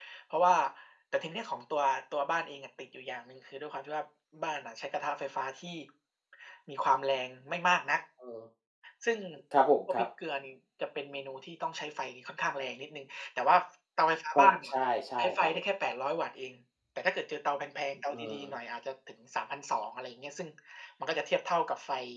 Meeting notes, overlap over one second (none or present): none